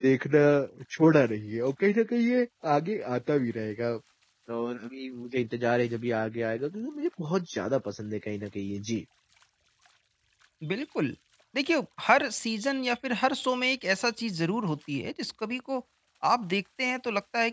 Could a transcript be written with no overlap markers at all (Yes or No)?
Yes